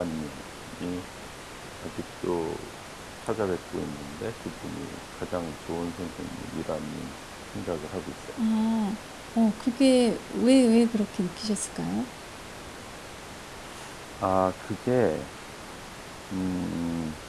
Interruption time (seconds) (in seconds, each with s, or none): none